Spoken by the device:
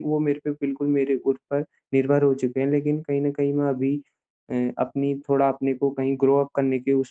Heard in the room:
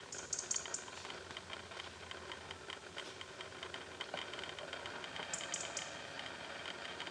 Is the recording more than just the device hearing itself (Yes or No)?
No